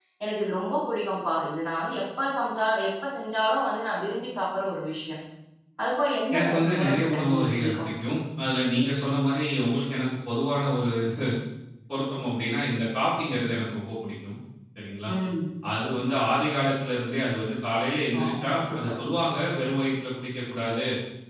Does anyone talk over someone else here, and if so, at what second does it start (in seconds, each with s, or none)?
6.3 s